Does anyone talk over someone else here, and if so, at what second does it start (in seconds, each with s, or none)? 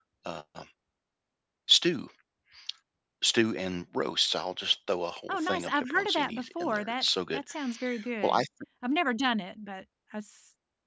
5.3 s